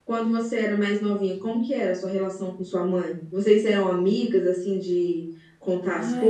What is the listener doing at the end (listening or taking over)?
taking over